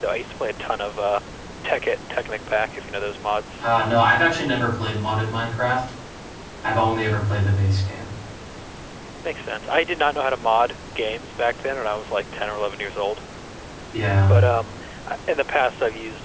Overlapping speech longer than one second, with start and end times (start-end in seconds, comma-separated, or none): none